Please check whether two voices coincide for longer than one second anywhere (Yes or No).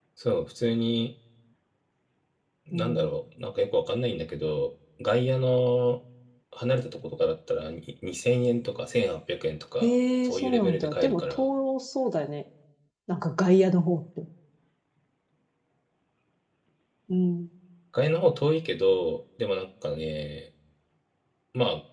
Yes